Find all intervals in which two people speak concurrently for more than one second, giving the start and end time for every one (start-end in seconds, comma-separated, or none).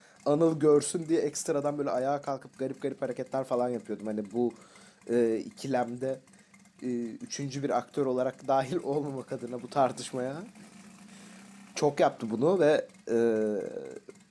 none